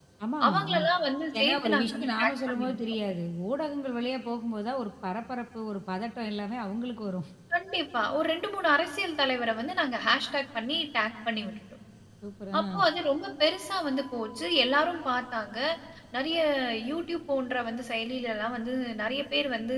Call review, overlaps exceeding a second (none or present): present